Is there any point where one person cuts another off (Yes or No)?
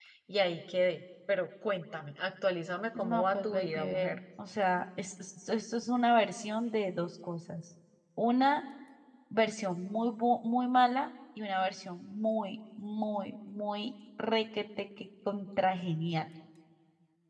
Yes